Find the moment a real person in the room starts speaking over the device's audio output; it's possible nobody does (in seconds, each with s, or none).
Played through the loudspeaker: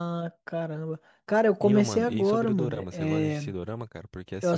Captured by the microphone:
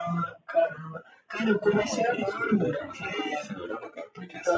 none